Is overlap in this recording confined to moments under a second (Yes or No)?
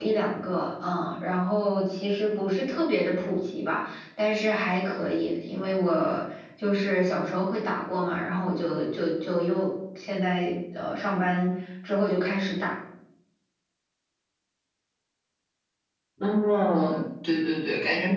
Yes